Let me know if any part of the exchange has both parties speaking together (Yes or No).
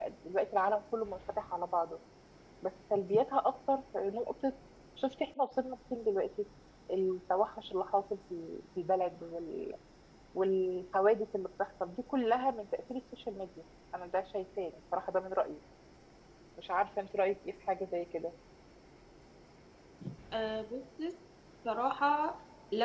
No